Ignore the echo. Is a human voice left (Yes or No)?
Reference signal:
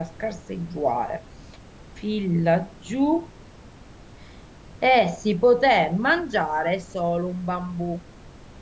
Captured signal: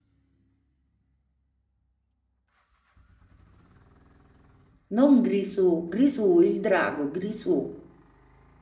Yes